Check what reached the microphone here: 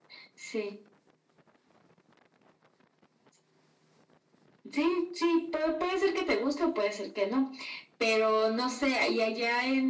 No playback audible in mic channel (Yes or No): No